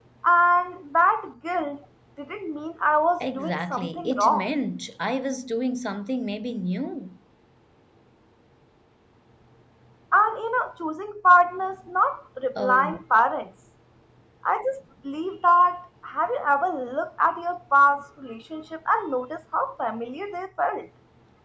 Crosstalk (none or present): present